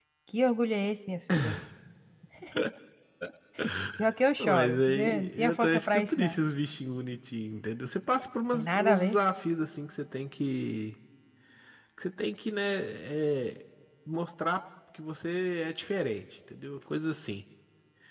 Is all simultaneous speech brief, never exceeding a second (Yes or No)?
No